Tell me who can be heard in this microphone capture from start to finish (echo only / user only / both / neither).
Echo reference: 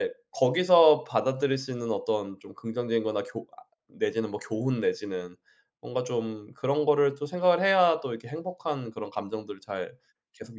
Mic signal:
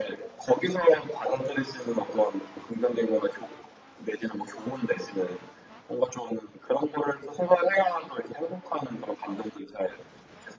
echo only